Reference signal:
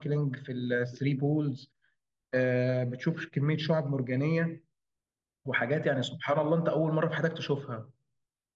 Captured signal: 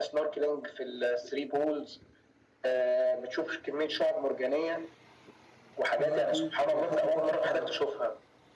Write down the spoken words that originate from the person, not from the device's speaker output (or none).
اه اكيد ويحط التاتش بتاعه بقى